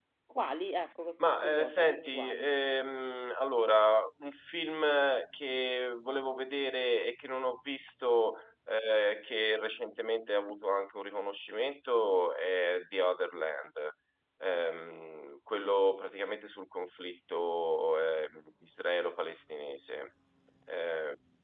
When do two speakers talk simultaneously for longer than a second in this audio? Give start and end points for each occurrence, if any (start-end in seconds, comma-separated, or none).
1.2-2.5